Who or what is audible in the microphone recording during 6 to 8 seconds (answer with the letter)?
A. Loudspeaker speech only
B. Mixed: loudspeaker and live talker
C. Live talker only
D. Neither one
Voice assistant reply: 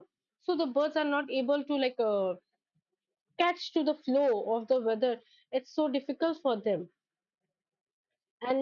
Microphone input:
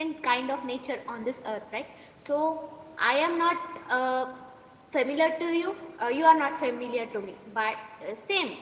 C